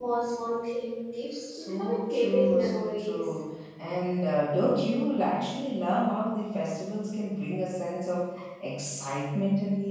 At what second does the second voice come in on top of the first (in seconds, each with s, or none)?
1.5 s